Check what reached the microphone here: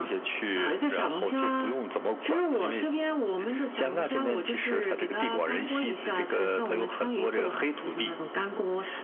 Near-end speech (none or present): none